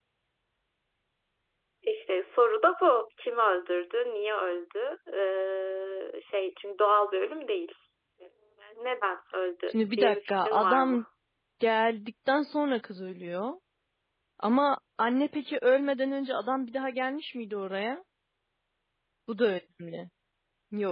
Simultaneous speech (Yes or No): Yes